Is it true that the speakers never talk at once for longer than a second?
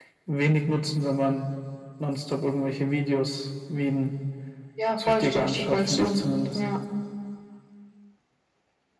No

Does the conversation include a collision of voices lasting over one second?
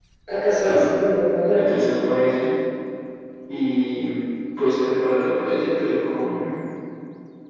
No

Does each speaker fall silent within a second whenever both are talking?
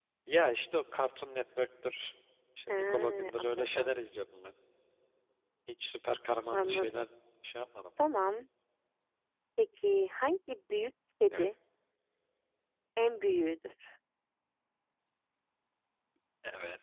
No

